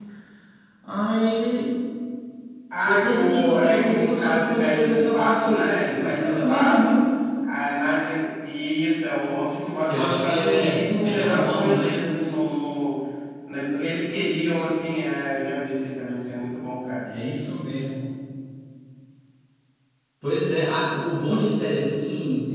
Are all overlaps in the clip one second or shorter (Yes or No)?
No